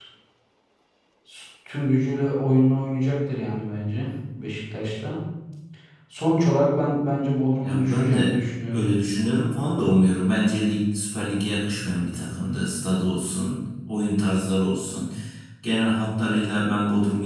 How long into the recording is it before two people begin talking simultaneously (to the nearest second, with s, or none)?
8 s